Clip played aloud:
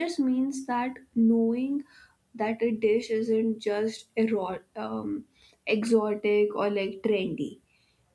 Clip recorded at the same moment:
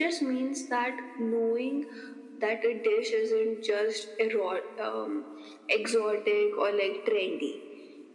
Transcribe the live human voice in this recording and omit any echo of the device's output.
none

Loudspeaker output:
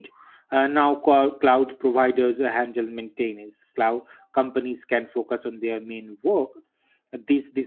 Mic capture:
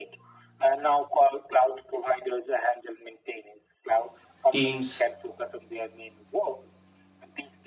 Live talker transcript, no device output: Teams

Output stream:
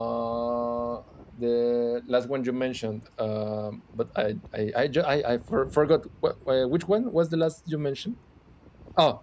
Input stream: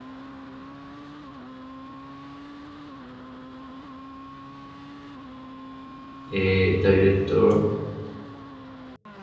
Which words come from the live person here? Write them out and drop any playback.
a director

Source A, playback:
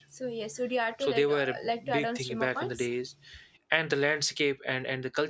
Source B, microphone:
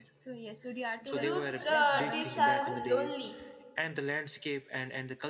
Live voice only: Groups uh, trips are lonely

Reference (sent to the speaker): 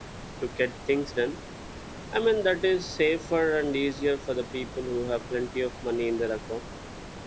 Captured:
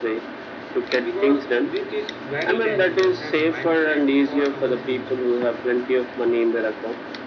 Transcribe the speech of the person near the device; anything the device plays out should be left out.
because which is very dangerous and mindset for our futures.

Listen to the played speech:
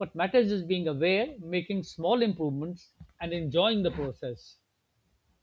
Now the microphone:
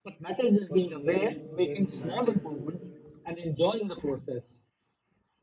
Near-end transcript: but small wins matter too.

